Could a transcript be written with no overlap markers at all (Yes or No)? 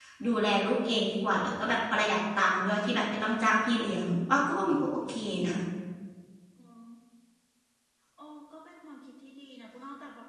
Yes